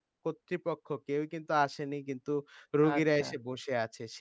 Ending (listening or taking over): listening